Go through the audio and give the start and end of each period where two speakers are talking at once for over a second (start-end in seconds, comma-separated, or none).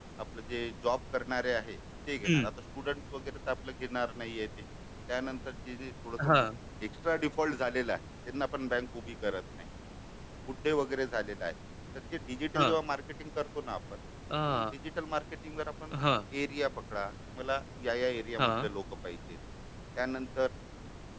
none